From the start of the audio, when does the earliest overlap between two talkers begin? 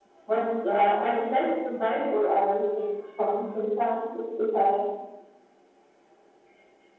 0.7 s

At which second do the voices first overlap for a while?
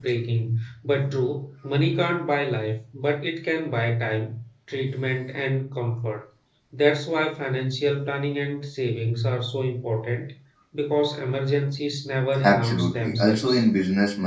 12.4 s

